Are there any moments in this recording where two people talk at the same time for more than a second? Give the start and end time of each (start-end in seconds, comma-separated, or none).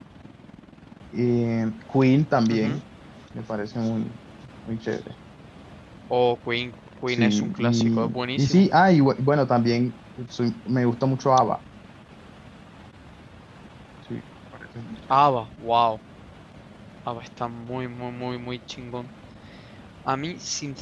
7.1-8.7